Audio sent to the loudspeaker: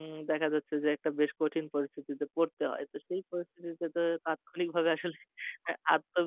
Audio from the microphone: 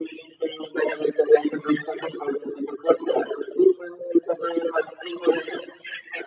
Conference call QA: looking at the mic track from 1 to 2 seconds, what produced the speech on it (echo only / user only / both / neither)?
echo only